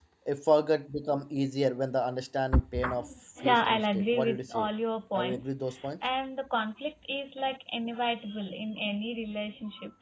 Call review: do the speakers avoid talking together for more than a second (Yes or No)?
No